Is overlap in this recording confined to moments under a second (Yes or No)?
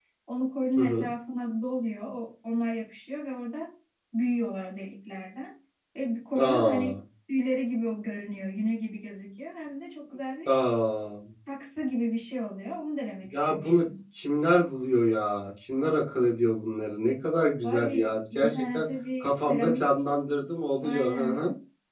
No